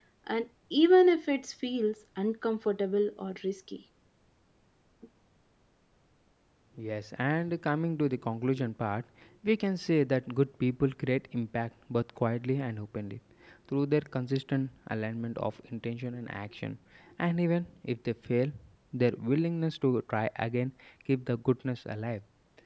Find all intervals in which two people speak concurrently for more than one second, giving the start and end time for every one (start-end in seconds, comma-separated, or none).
none